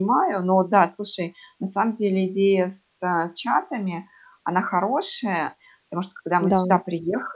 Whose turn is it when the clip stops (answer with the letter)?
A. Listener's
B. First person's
B